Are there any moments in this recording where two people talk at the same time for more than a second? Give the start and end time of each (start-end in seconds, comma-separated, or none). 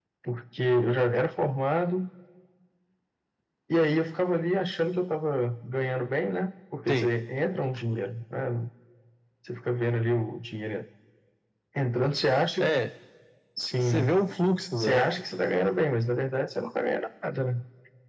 none